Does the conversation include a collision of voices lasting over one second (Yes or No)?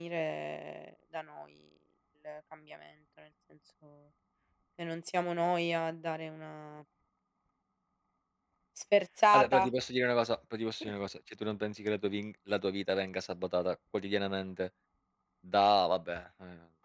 No